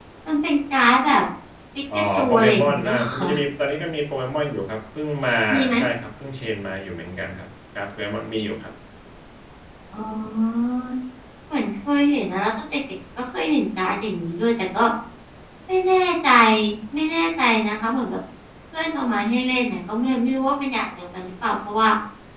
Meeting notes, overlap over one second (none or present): present